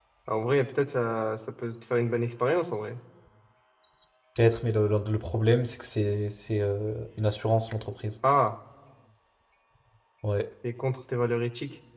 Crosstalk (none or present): none